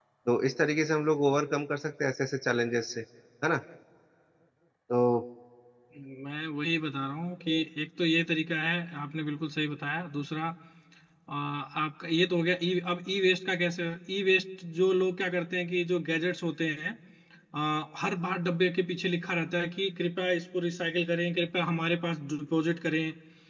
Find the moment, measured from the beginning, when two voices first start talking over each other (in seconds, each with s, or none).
none